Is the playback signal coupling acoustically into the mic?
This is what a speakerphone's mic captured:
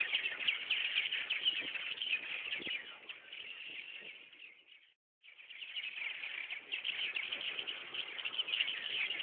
No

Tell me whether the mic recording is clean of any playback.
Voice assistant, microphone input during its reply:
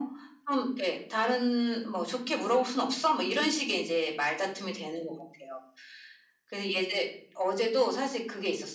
No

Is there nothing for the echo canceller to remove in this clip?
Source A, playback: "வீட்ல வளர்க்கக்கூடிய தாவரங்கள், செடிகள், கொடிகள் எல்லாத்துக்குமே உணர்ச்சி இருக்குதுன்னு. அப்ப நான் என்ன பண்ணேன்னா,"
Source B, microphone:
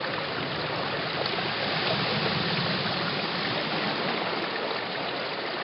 Yes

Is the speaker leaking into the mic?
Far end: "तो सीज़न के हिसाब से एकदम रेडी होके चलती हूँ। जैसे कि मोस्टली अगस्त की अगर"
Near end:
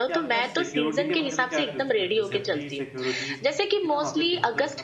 Yes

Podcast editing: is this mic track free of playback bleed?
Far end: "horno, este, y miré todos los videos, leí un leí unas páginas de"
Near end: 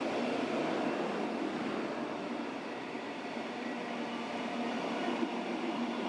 Yes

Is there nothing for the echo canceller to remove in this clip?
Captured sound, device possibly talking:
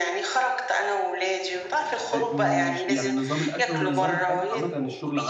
No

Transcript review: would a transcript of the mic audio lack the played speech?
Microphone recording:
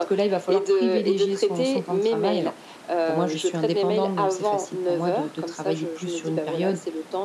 No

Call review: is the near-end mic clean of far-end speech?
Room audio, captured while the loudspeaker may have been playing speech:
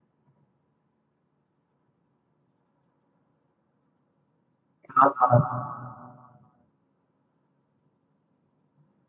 Yes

